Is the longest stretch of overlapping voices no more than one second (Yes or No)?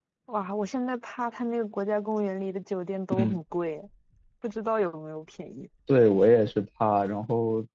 Yes